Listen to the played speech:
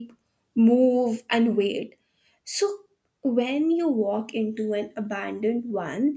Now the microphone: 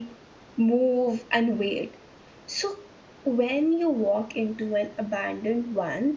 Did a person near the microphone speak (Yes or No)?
No